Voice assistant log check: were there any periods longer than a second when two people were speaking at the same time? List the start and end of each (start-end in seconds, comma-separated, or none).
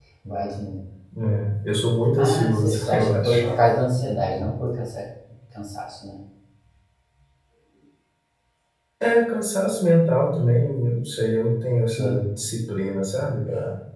2.2-3.4